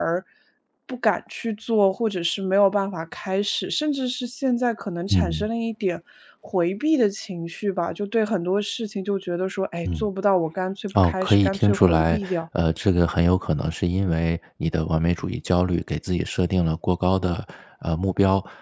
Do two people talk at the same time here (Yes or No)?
Yes